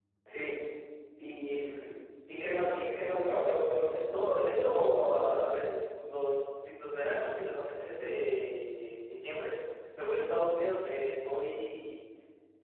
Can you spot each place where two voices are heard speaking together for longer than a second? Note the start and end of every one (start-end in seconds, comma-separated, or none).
4.1-5.4